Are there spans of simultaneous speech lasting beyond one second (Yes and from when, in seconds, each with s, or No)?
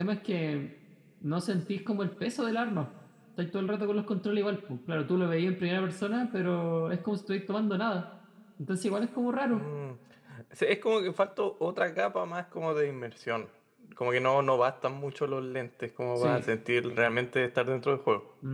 No